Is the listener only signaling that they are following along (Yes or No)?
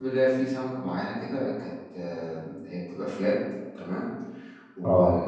Yes